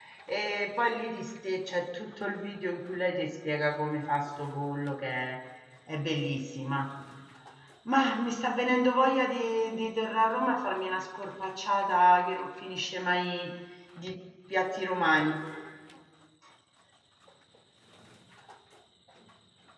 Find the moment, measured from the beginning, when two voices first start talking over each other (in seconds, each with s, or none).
none